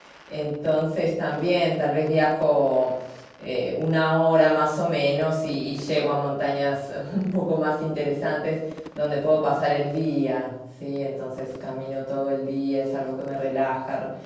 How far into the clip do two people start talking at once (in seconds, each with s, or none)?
none